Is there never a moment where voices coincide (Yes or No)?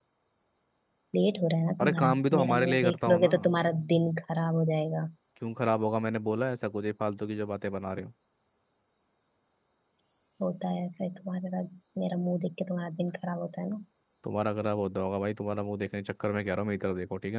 No